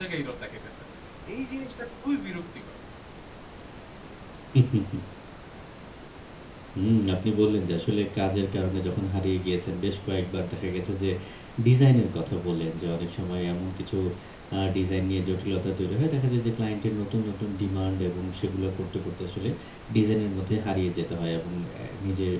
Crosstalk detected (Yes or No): No